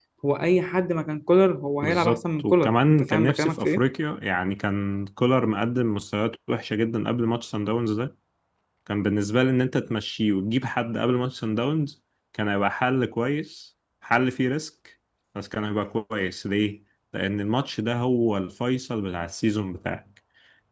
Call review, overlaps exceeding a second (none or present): present